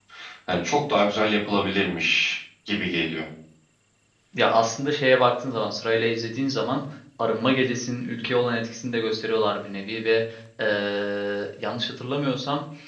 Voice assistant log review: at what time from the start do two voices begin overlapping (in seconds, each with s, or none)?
none